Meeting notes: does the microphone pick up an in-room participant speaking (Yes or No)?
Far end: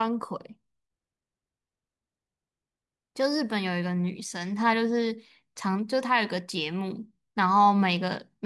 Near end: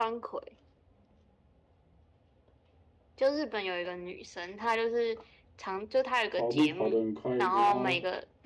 Yes